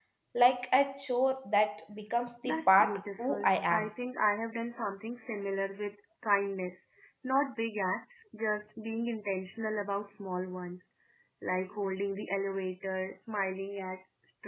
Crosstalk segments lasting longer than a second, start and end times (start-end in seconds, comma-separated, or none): 2.4-3.9